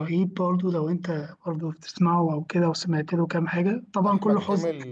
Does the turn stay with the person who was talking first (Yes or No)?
No